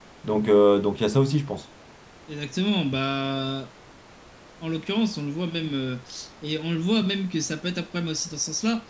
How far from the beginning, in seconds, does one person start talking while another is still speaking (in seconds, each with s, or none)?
none